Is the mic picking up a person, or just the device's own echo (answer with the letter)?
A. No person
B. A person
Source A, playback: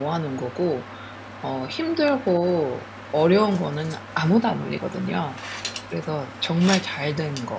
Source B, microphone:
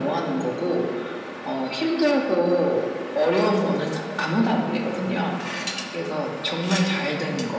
A